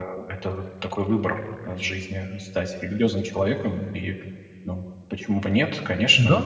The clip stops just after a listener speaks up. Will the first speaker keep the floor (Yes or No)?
No